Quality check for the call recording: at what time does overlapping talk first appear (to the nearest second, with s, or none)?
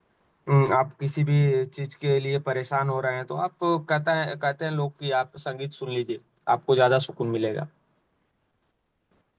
none